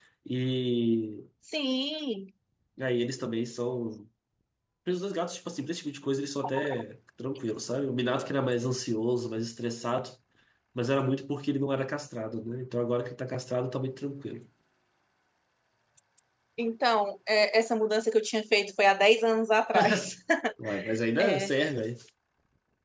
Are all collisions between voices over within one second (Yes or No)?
Yes